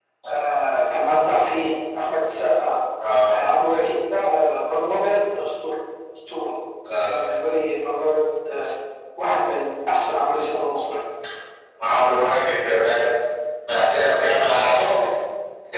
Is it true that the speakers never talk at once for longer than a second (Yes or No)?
Yes